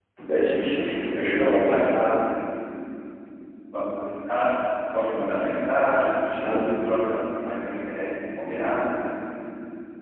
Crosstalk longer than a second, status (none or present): present